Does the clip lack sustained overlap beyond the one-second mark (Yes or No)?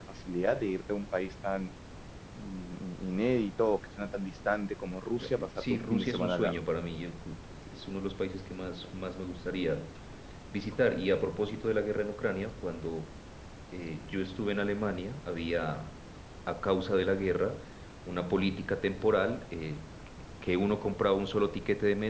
No